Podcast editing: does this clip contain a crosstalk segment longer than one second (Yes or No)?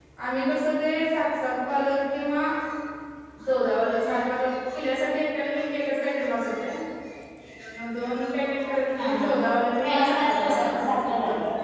Yes